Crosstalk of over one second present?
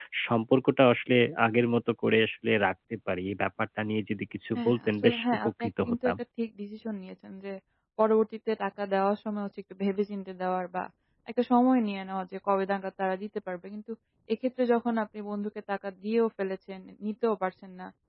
Yes, from 4.6 s

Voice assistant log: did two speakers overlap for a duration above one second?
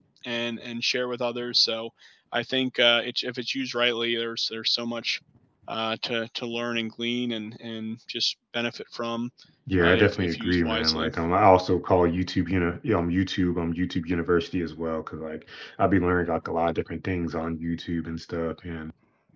Yes, from 9.8 s

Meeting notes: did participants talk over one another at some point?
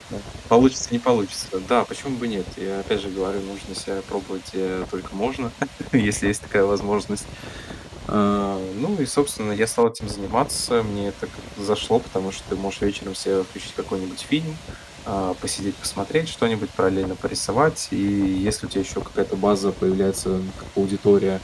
No

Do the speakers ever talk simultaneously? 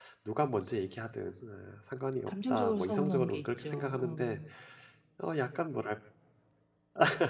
Yes, from 2.3 s

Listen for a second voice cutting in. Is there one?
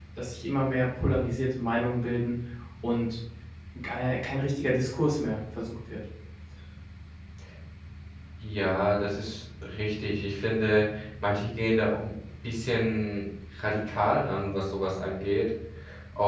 No

